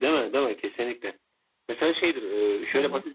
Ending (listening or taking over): listening